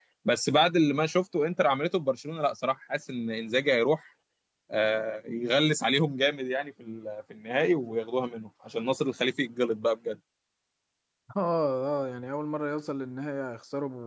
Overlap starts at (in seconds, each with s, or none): none